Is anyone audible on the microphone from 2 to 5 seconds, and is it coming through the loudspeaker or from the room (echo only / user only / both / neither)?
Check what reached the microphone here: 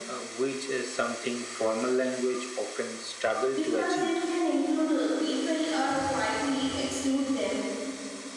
both